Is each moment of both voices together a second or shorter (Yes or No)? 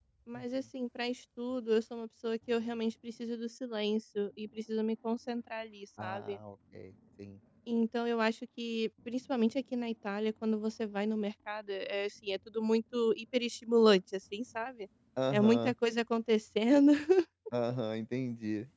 Yes